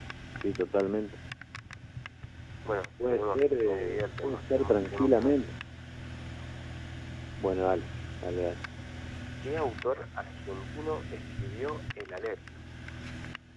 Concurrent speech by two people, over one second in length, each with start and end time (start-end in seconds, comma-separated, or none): 3.0-5.5